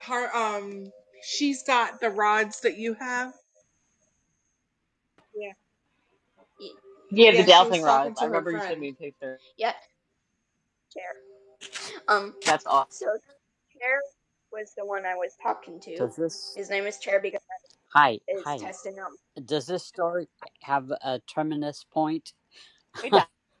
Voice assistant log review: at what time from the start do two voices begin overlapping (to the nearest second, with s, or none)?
7 s